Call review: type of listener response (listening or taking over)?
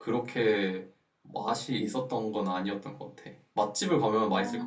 taking over